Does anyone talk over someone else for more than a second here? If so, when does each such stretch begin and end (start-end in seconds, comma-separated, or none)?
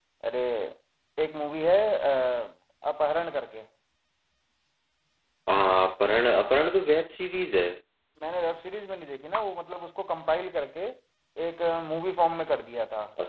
none